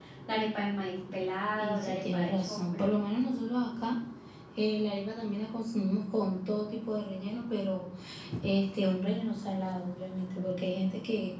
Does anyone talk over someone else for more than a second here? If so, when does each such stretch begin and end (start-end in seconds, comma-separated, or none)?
1.6-3.1